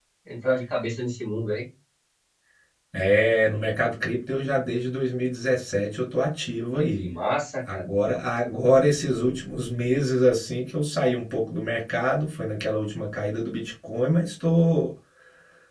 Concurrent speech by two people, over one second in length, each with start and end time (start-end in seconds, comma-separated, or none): none